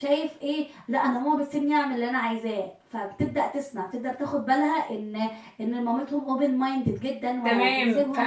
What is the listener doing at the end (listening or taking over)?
taking over